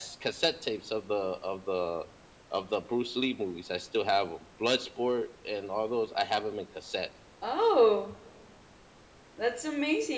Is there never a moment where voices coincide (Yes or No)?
Yes